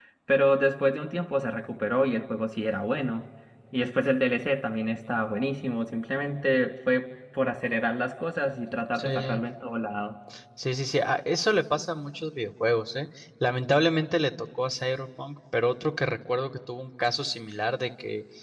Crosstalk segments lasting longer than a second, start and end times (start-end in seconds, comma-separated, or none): none